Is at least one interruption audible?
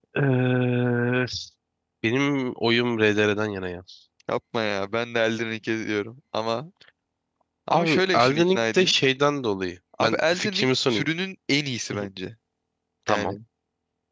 Yes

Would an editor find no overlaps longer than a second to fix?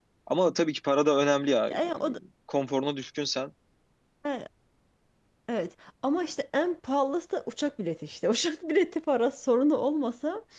Yes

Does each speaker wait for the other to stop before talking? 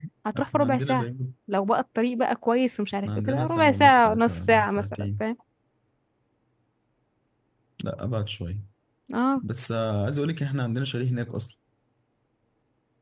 No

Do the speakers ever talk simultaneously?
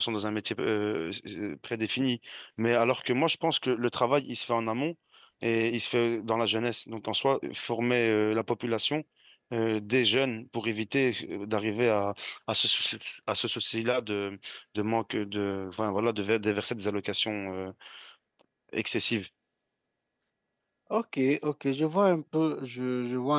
No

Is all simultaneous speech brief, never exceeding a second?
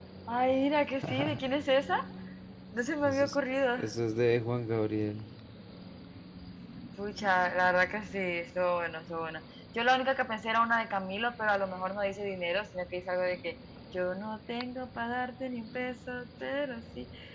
Yes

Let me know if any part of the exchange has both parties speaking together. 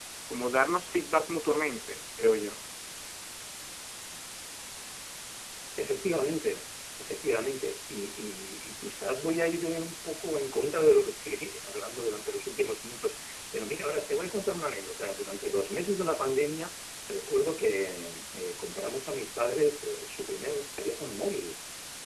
No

